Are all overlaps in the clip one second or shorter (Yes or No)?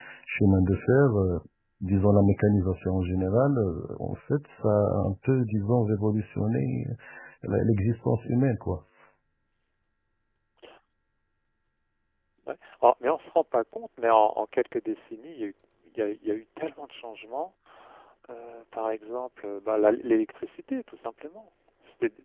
Yes